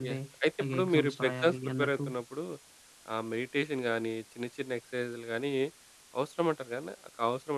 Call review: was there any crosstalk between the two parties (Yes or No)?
Yes